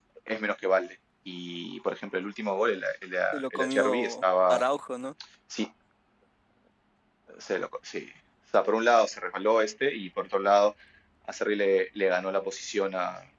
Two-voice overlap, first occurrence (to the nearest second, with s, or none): 3 s